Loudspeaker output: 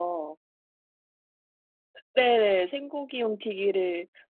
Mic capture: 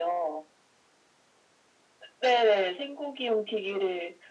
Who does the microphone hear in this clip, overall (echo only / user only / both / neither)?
echo only